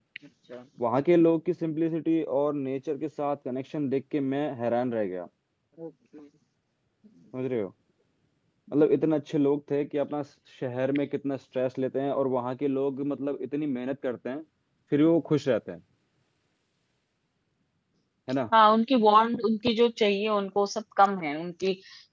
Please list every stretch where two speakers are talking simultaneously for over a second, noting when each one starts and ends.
none

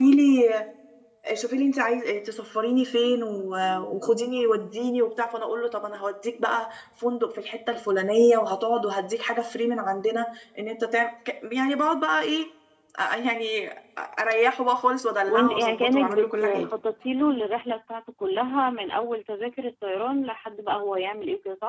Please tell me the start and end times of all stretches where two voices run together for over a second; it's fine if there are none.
15.3-16.7

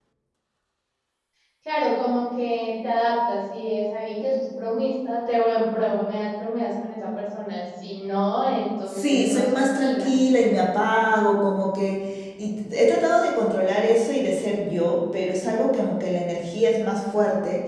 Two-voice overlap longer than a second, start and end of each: 8.9-10.1

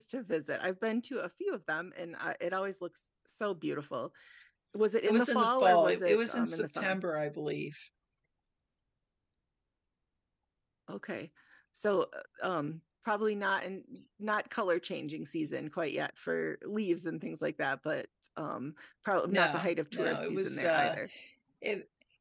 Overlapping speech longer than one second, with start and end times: 5.1-7.0, 19.3-21.0

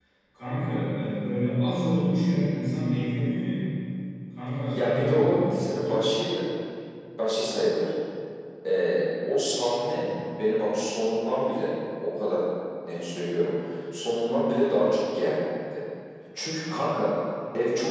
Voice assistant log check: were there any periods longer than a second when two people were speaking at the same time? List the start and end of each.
4.7-6.0

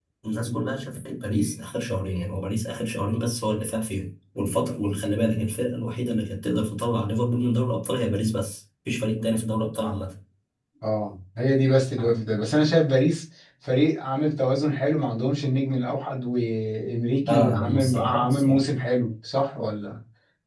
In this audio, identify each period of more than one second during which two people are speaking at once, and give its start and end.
17.2-18.7

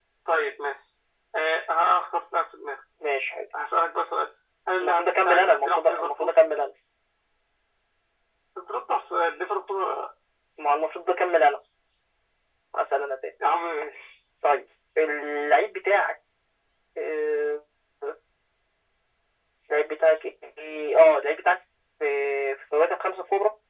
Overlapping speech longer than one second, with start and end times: 4.8-6.3

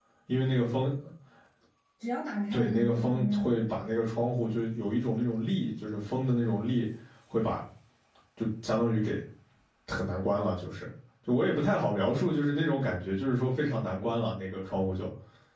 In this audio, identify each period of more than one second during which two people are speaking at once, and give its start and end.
2.5-3.7

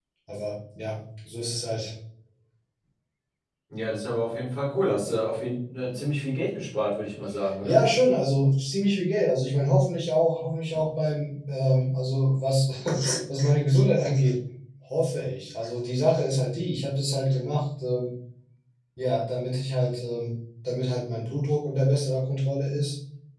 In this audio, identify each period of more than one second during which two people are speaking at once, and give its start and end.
none

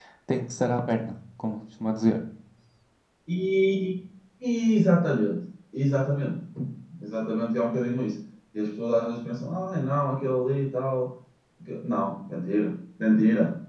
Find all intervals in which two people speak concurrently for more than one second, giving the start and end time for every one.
none

